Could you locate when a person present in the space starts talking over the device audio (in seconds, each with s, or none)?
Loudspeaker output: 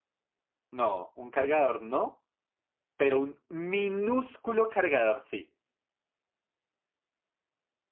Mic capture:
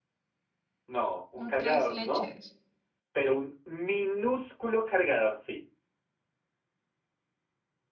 1.4 s